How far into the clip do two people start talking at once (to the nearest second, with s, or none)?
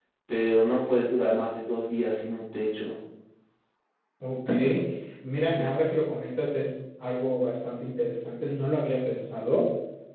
none